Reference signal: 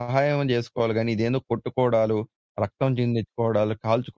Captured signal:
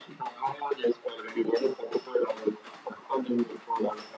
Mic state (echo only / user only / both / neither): echo only